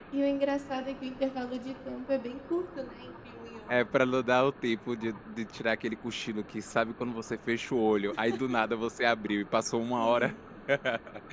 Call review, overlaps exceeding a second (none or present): none